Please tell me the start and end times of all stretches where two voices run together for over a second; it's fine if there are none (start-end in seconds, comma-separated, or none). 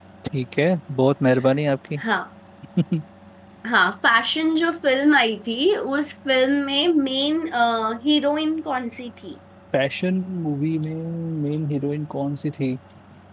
none